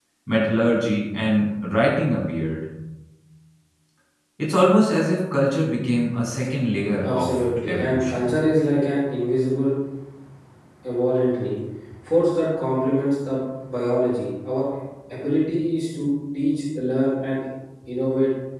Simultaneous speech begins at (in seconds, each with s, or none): 7.0 s